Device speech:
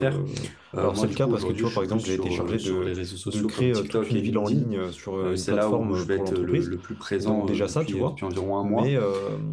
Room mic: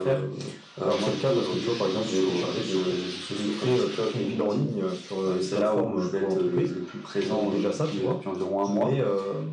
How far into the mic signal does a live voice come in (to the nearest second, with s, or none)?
none